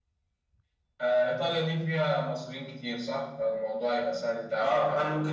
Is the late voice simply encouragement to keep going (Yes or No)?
No